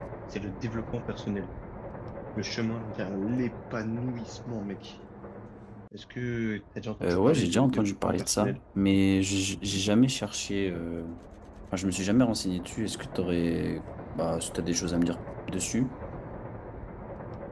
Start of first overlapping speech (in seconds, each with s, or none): 7.0 s